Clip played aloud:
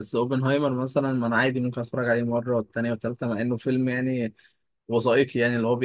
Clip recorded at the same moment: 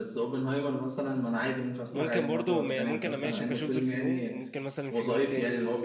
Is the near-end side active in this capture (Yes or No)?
Yes